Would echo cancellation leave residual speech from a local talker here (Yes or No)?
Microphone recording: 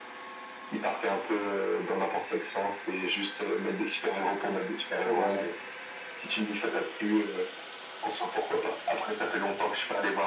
Yes